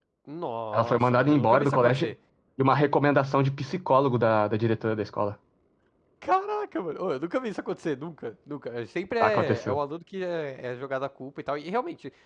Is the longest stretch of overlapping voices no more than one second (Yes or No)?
No